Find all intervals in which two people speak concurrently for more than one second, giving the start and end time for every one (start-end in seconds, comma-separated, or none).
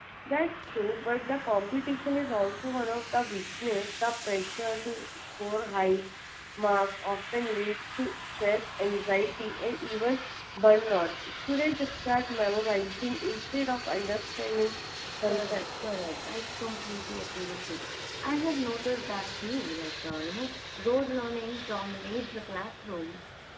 none